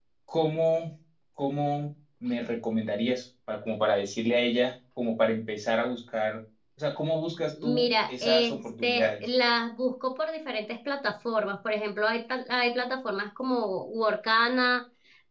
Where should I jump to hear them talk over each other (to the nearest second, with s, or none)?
8 s